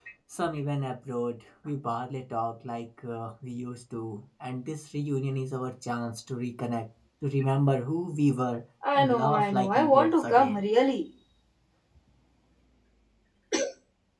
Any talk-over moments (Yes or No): Yes